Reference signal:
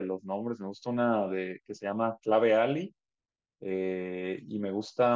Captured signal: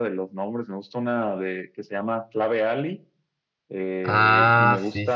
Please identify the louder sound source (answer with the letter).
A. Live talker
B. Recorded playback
A